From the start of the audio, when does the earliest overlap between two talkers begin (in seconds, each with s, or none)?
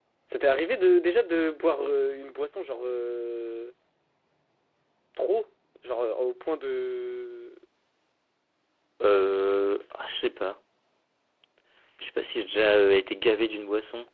none